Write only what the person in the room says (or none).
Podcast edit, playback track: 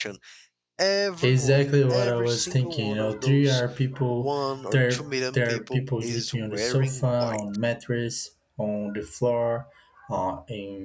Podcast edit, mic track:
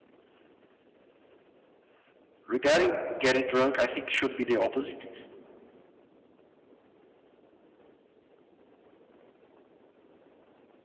Regarding getting drunk, I think it should be the opposite